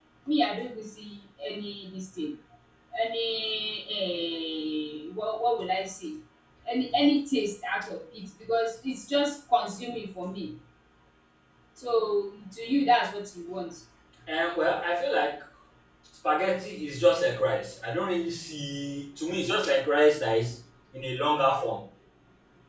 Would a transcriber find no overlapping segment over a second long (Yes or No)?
Yes